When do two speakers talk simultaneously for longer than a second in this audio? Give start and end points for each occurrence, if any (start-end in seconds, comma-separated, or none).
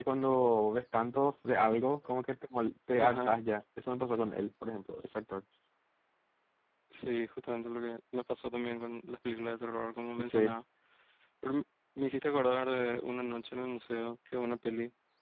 none